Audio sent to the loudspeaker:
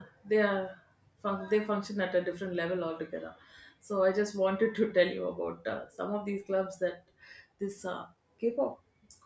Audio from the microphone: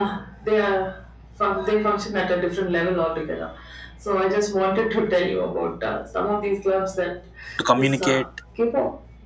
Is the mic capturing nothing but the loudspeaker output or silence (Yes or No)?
No